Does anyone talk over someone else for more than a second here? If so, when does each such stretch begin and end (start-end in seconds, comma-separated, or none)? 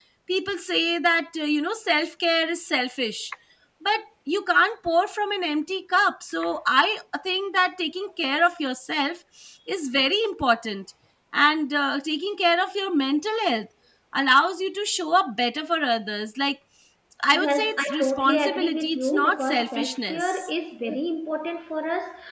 17.3-20.5